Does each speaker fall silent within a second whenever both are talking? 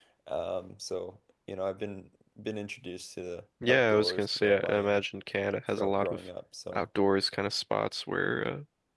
No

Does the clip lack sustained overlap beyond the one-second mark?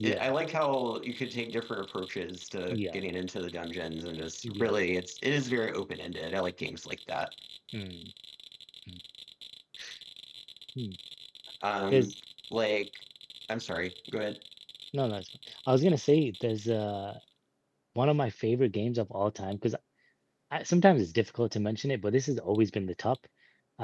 Yes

